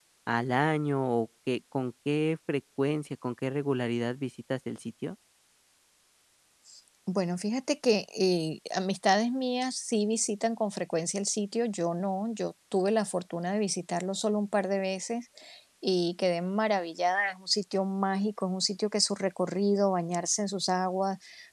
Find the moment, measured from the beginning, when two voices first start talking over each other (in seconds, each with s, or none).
none